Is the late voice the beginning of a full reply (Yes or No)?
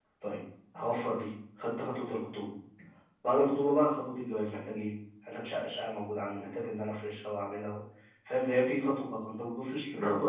No